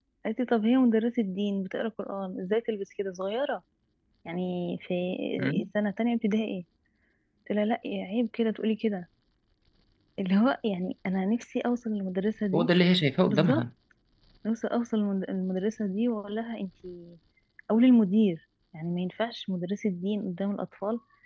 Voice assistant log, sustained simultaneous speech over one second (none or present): none